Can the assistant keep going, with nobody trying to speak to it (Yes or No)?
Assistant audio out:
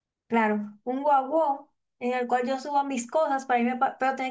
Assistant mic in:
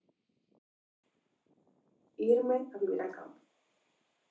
No